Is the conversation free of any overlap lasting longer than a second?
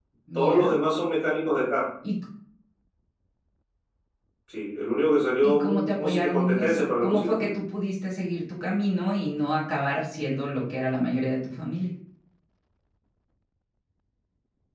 No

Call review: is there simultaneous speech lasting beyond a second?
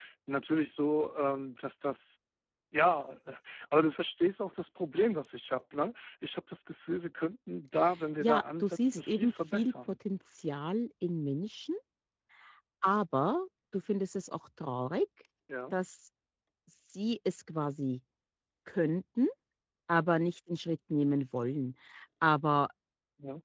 Yes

